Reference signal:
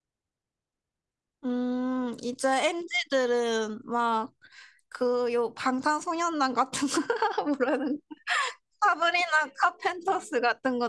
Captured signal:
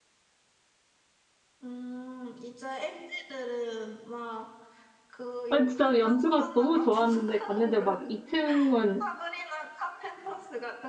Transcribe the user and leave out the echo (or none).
아 진짜 연주가 너무 좋았는데, 갔는데 막 2층은